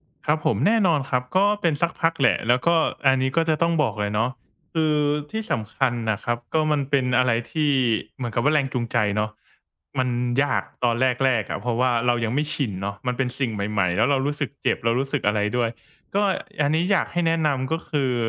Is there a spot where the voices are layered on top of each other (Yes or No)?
No